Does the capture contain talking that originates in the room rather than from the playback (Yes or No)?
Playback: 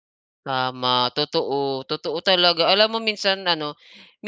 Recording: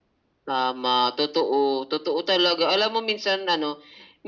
No